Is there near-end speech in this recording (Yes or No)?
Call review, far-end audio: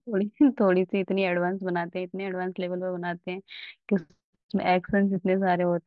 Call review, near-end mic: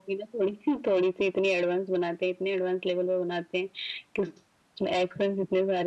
No